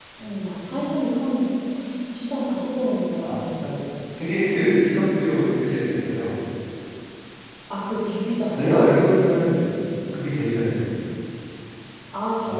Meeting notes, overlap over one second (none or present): none